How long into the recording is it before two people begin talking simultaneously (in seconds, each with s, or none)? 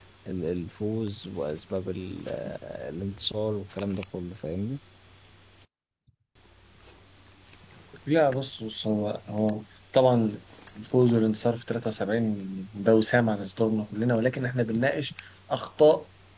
none